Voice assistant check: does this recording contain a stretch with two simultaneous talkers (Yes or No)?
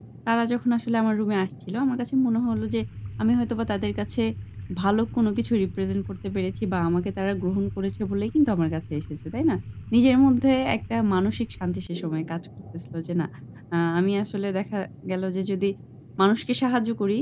No